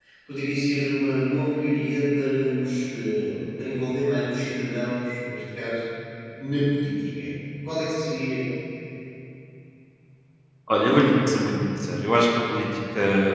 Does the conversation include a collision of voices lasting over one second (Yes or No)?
No